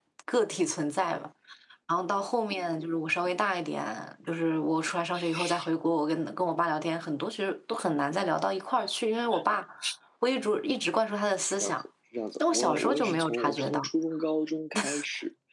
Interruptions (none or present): present